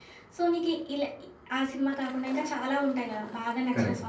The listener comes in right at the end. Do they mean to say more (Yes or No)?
No